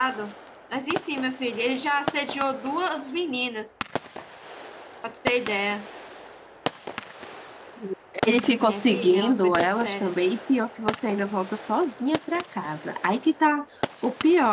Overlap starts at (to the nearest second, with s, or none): 9 s